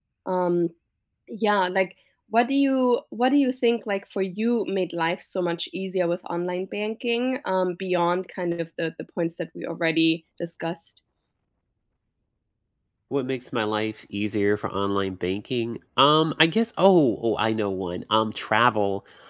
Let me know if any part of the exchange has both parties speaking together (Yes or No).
No